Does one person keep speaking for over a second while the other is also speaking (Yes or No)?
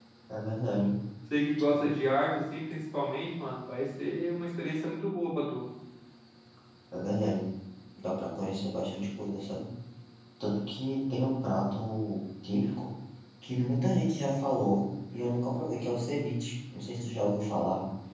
No